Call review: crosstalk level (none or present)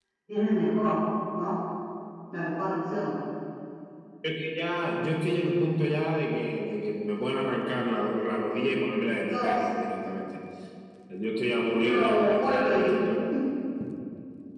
present